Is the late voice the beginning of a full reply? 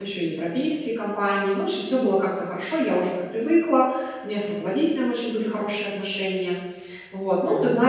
No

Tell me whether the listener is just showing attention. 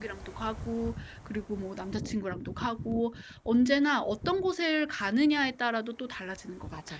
No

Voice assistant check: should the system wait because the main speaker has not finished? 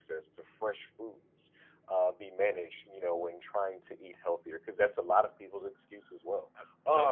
Yes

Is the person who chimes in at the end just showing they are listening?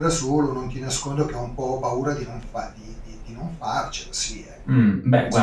No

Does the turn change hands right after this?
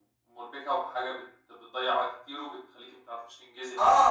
Yes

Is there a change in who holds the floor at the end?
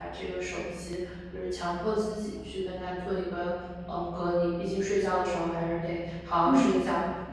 Yes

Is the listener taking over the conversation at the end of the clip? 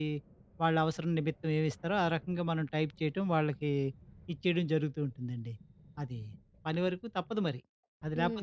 Yes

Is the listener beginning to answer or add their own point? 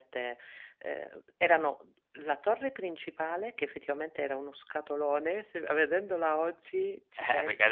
Yes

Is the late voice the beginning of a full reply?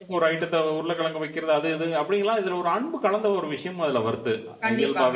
Yes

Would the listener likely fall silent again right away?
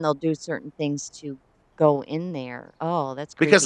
No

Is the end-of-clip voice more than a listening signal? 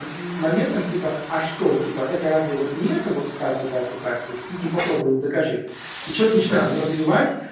No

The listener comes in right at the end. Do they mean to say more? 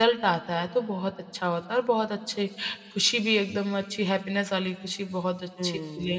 Yes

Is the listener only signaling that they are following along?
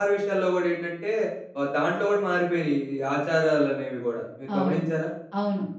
No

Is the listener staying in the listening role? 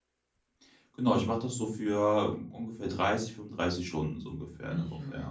No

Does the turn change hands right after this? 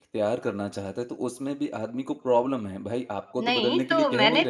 Yes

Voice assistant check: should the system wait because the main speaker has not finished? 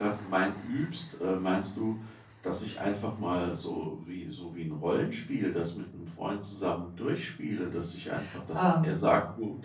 Yes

